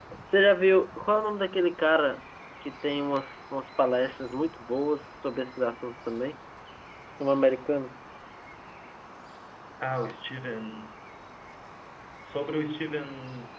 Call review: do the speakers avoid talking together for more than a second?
Yes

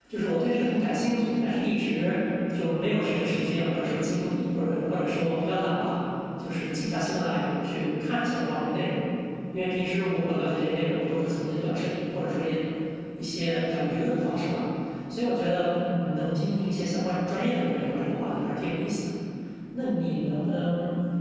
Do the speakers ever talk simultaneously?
No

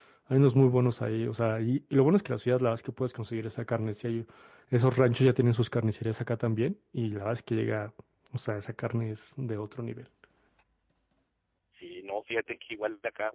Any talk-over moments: No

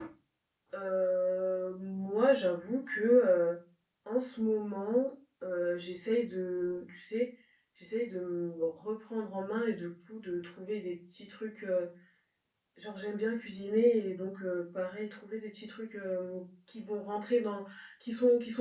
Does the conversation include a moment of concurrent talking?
No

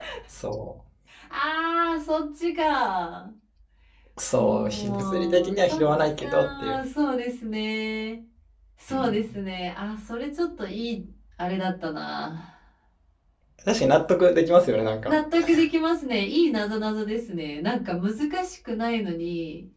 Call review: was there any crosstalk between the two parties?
Yes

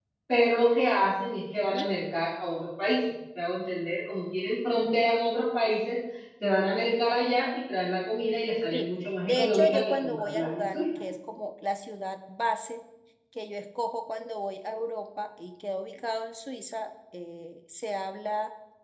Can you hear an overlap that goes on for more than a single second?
Yes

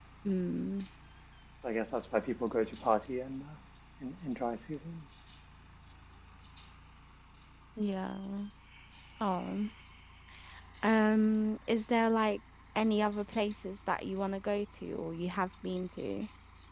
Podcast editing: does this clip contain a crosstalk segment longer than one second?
No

